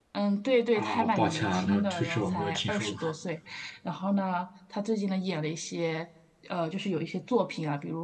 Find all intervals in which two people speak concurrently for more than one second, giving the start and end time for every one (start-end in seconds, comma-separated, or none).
0.8-3.0